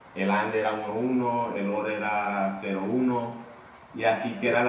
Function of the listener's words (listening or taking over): listening